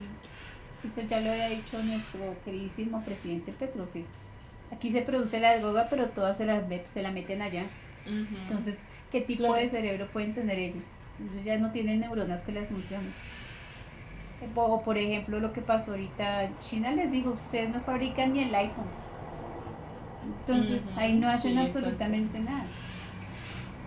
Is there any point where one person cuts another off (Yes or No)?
Yes